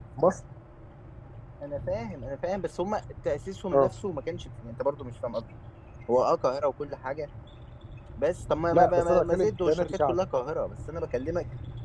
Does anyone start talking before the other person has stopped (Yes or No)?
Yes